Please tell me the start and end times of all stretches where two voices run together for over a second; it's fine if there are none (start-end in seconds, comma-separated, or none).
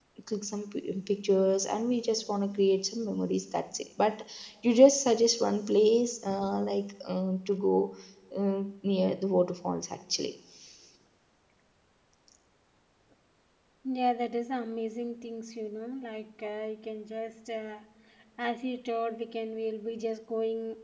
none